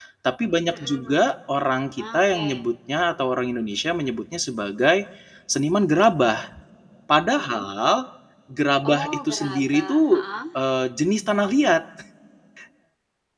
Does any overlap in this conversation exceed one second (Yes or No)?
Yes